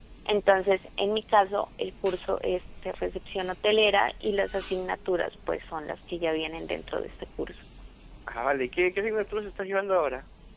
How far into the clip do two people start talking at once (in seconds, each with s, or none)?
none